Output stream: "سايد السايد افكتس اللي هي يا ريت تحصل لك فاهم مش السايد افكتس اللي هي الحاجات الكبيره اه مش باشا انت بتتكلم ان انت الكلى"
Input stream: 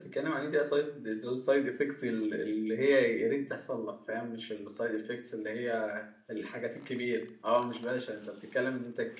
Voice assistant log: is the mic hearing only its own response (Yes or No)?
Yes